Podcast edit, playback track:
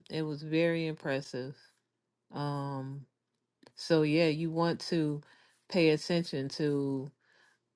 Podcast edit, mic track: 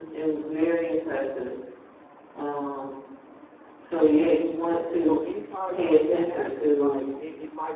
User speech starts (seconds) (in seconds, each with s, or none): 5.0 s